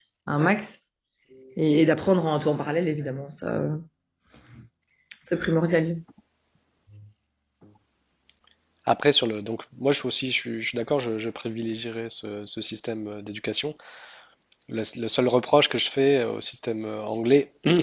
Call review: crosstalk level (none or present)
none